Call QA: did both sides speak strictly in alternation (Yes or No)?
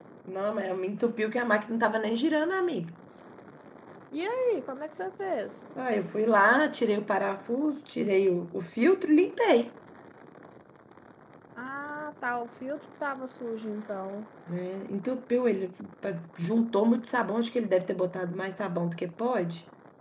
Yes